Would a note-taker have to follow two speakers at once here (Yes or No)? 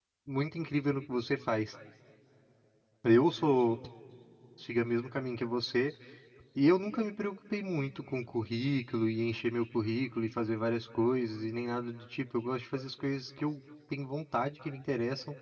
No